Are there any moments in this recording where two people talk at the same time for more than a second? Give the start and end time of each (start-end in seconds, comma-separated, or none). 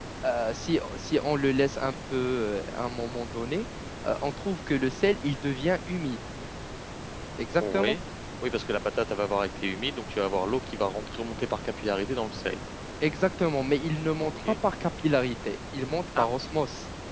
none